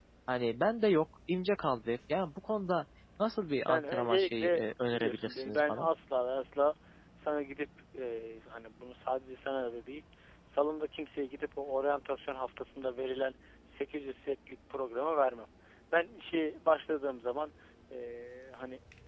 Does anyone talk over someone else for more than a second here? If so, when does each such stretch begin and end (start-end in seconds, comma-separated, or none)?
3.7-5.9